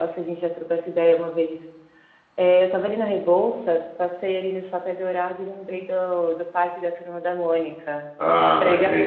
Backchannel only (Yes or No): No